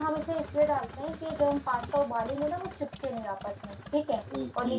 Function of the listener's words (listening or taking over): taking over